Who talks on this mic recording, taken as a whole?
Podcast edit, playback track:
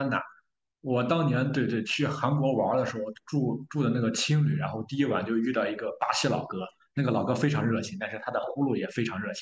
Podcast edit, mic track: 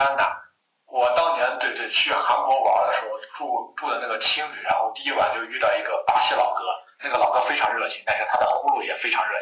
echo only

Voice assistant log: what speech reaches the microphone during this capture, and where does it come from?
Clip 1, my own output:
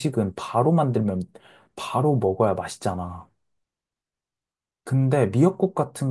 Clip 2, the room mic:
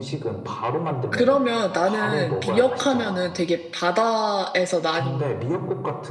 both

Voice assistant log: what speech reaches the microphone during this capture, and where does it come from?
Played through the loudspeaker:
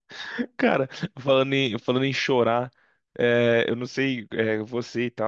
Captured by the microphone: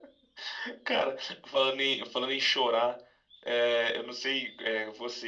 echo only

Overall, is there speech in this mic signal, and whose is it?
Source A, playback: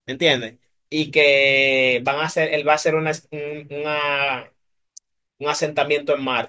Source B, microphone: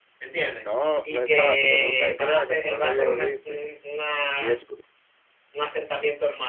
both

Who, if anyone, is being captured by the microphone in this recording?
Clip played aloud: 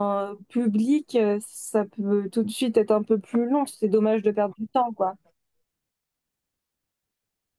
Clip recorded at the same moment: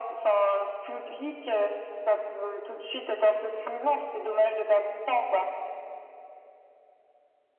echo only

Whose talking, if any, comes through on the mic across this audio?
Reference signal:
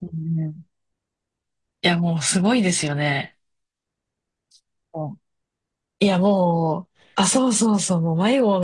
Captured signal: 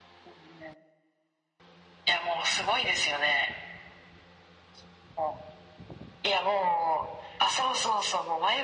echo only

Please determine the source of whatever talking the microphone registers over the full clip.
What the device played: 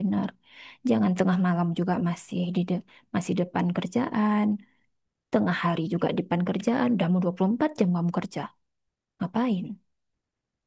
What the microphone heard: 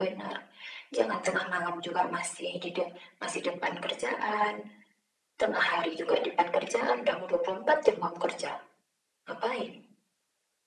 echo only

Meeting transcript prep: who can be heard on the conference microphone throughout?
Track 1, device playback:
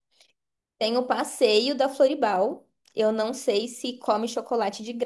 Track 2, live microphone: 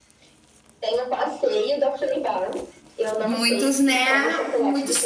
both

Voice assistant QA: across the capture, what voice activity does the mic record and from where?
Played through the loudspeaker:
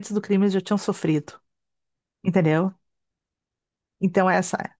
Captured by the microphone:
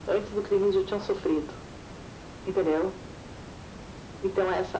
echo only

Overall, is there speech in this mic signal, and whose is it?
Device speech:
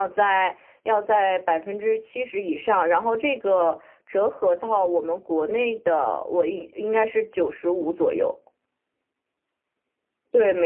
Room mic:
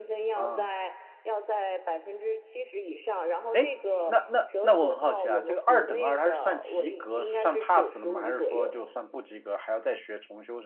both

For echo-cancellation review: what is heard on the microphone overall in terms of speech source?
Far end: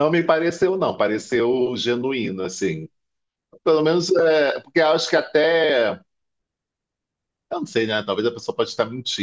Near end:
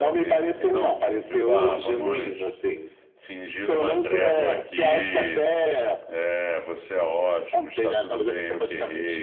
both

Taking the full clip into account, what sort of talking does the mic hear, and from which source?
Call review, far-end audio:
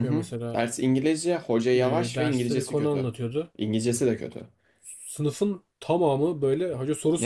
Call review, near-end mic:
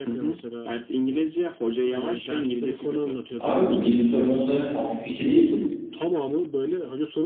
both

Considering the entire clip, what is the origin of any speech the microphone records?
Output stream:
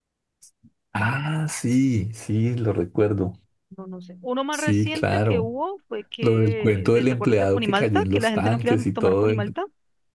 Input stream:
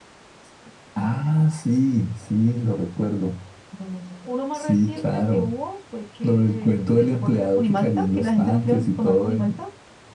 echo only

